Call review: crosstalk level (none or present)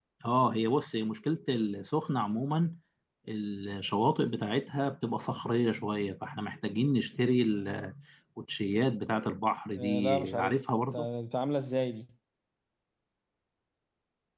present